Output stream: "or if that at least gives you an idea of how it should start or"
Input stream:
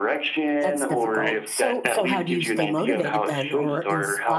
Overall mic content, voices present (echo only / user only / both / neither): both